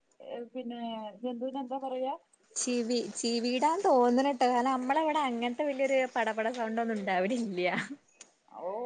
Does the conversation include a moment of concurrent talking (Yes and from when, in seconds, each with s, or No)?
No